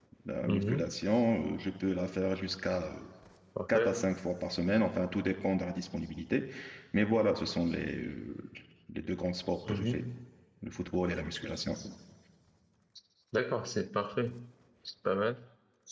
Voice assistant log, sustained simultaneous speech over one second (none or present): none